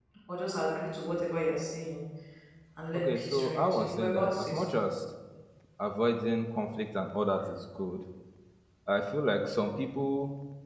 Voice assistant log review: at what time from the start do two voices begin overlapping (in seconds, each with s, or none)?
2.9 s